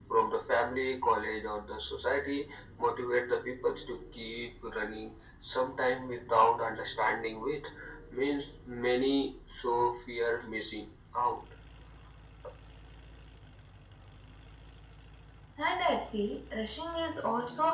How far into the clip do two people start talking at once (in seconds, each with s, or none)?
none